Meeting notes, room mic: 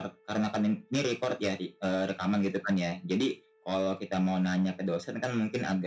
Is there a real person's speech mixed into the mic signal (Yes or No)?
No